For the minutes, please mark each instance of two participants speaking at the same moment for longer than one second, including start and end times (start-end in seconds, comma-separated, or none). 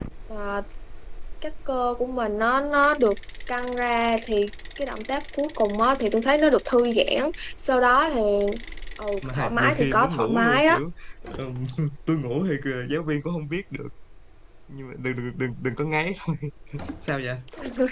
9.3-10.8